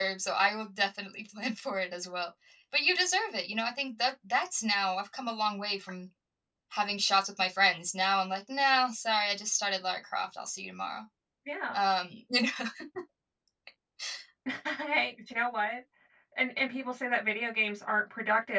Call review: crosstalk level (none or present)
none